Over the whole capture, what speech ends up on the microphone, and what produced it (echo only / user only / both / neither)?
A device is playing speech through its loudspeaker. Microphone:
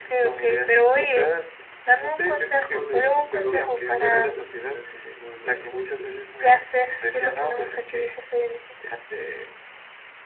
both